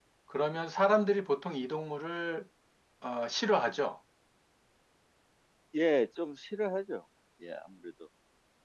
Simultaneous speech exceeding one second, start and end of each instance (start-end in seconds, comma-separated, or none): none